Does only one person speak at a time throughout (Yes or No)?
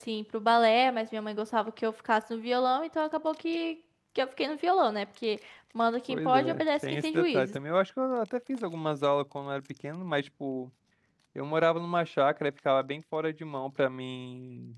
No